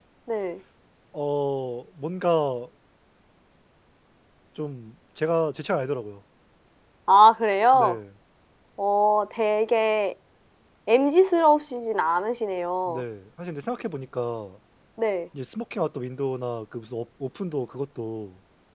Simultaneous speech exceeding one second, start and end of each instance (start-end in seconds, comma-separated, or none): none